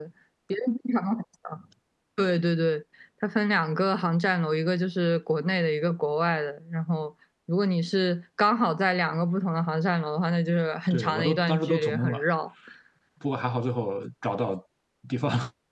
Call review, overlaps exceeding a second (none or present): present